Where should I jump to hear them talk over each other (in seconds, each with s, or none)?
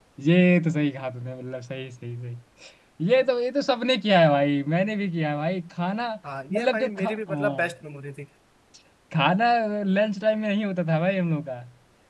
6.5 s